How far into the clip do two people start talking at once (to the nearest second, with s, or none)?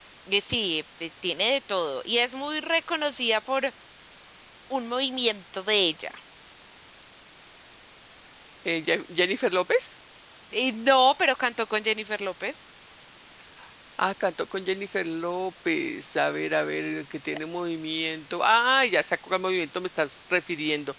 none